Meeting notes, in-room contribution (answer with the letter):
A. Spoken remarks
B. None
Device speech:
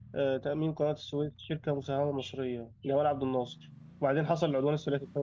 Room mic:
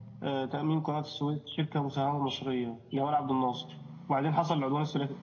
B